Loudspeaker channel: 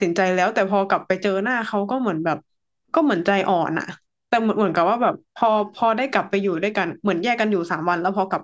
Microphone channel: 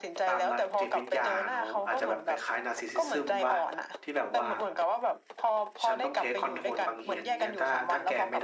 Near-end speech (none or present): present